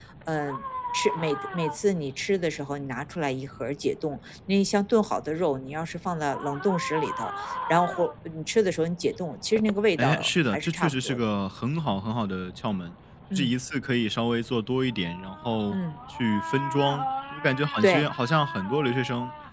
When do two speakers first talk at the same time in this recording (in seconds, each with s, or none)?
10.0 s